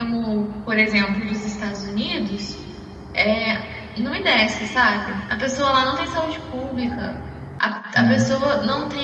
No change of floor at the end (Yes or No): Yes